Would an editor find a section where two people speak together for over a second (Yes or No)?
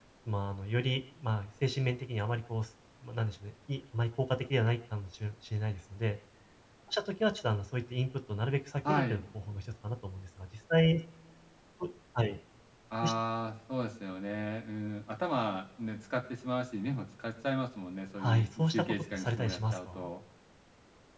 Yes